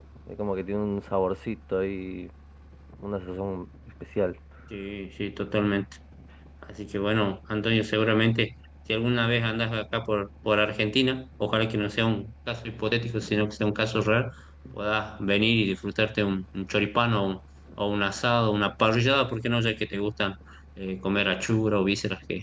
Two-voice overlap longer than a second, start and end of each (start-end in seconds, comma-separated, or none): none